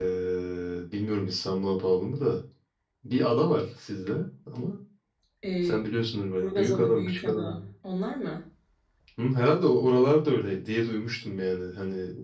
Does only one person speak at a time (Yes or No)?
No